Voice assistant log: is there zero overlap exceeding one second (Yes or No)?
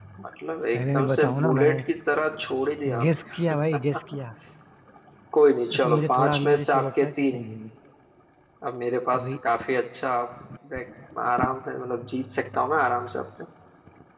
No